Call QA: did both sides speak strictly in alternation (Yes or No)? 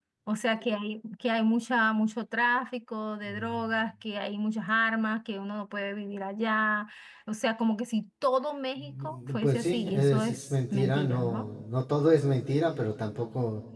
No